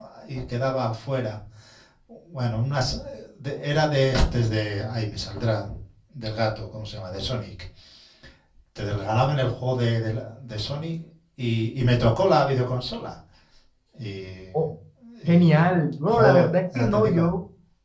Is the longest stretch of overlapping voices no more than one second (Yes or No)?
No